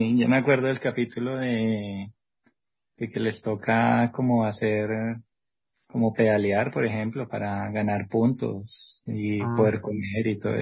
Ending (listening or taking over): listening